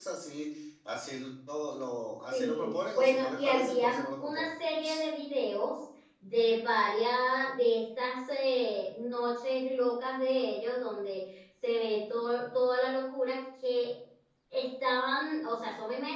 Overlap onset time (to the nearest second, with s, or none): 2 s